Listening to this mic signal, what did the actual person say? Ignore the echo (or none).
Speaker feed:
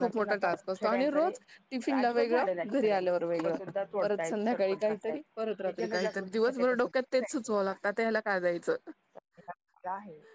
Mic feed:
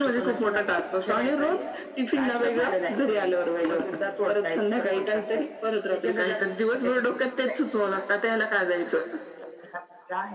none